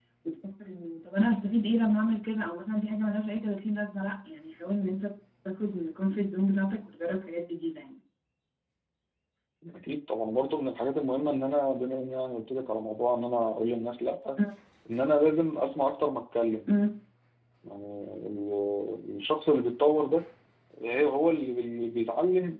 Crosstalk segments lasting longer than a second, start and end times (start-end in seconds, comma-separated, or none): none